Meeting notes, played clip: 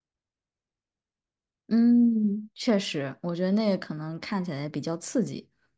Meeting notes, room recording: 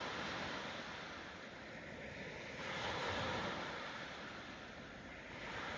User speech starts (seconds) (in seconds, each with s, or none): none